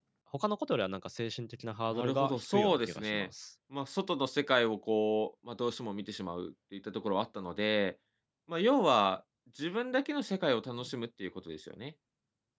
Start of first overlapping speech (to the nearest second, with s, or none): 2 s